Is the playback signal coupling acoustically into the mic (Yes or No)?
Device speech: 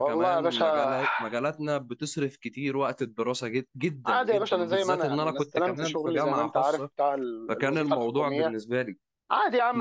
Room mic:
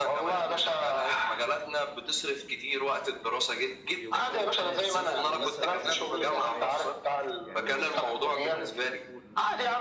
Yes